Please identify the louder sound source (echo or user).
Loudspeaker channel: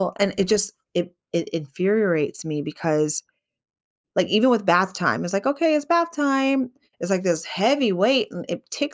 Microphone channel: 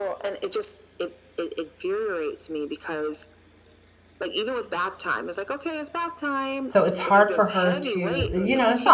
user